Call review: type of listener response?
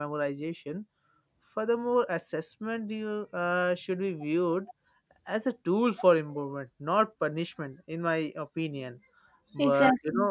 listening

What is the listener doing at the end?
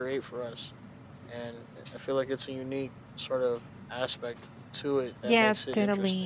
taking over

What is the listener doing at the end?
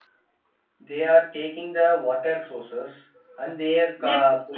taking over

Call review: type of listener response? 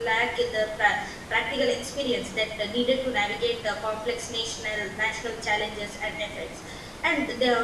listening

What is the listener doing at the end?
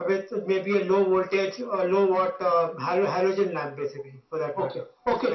taking over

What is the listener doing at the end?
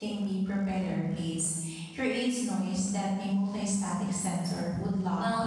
taking over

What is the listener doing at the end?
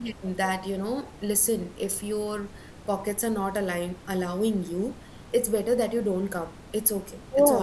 listening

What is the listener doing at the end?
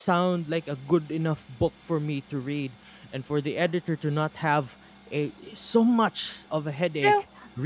taking over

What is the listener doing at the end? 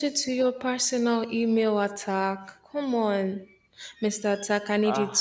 listening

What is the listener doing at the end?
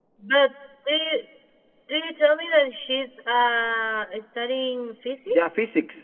taking over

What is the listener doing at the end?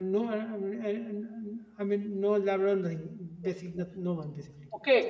taking over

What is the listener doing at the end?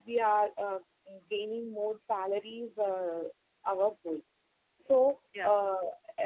listening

